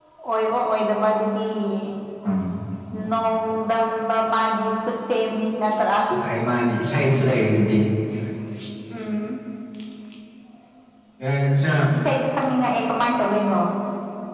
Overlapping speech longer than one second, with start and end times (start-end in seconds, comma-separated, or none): none